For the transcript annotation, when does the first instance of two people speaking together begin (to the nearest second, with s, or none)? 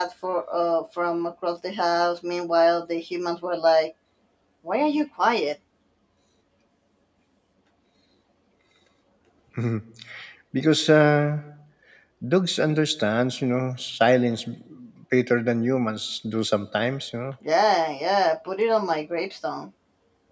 none